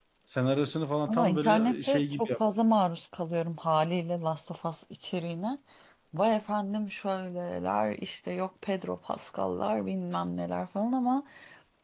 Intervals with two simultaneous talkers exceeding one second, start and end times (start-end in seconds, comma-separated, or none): 1.1-2.4